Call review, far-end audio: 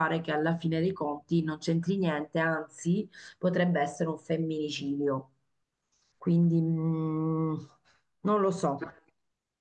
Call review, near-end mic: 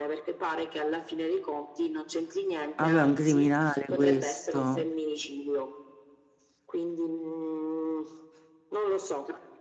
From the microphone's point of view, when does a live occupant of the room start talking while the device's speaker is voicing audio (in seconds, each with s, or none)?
2.7 s